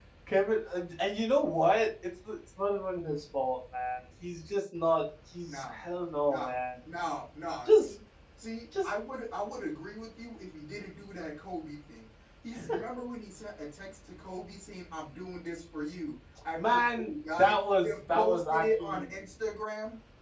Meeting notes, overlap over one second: present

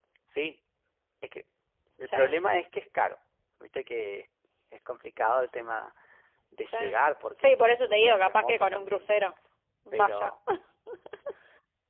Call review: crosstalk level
present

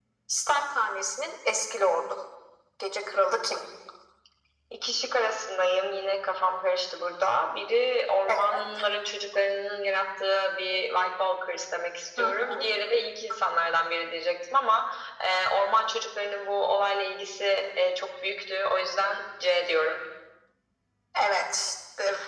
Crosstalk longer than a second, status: none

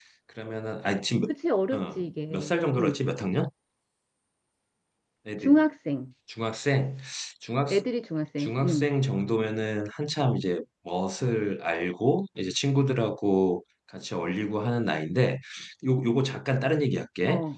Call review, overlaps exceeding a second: present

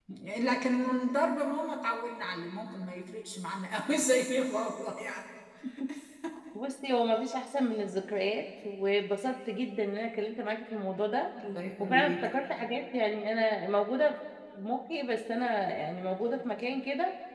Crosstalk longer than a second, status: none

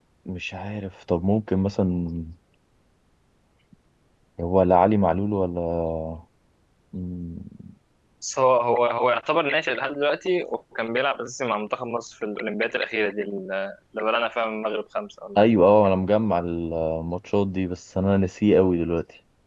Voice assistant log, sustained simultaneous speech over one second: none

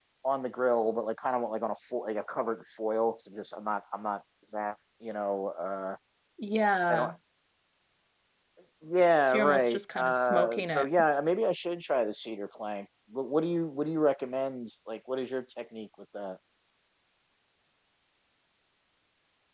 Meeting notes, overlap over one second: present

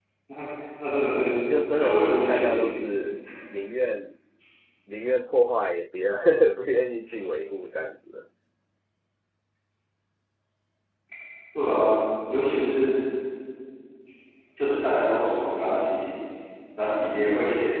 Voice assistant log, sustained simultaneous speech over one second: present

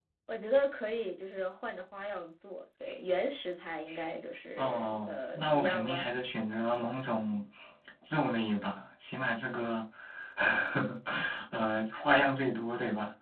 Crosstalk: present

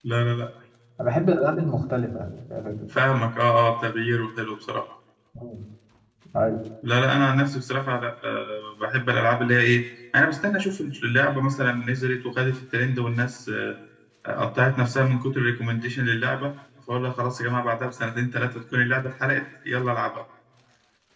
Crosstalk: none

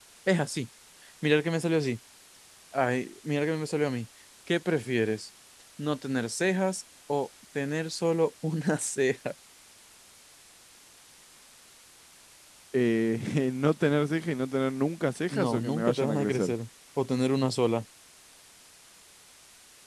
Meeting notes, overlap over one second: present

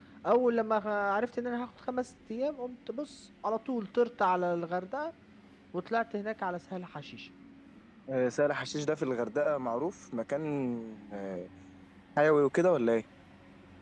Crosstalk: none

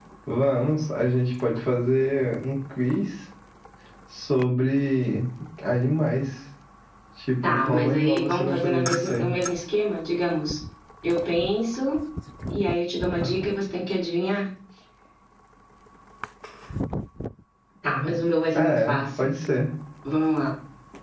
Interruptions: present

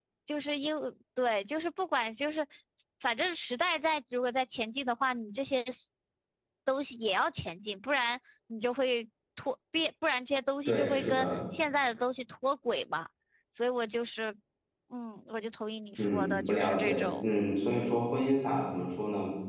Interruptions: present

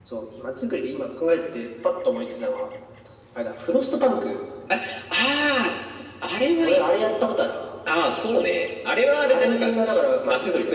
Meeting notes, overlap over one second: present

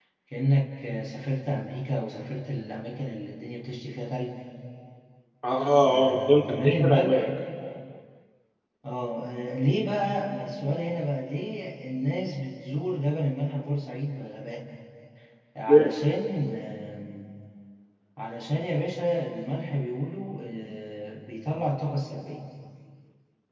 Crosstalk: present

